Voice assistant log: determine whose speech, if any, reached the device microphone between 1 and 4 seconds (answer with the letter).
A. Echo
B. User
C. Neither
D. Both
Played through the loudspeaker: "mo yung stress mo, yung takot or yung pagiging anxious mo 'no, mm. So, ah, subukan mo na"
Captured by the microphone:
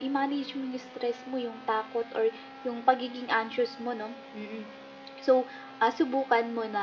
A